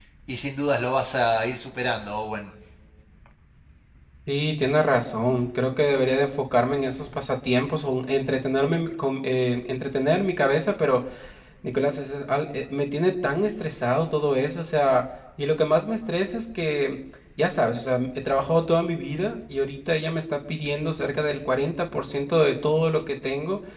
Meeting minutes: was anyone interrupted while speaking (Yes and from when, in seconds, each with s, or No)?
No